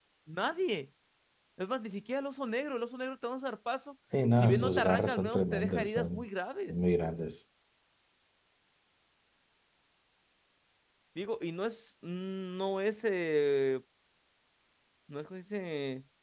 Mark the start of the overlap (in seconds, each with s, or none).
4.4 s